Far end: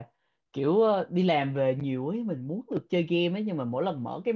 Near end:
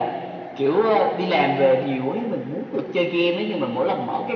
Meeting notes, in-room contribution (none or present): none